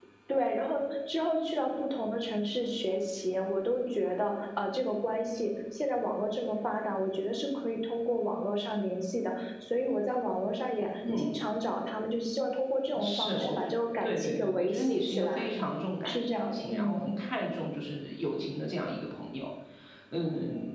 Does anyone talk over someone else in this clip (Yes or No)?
Yes